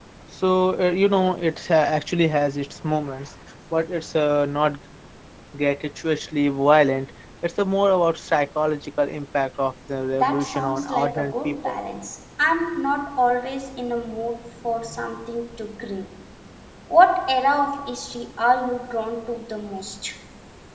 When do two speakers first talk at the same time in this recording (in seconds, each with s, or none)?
10.1 s